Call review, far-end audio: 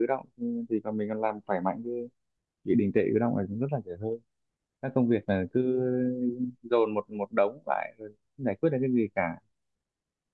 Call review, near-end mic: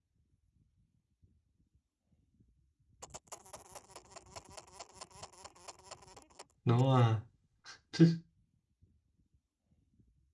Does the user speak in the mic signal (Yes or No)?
Yes